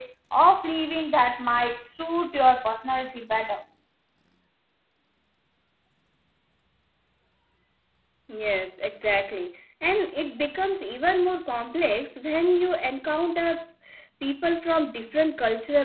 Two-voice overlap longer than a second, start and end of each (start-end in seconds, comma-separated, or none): none